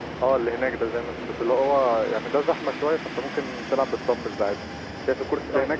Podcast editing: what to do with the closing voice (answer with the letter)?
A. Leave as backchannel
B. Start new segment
A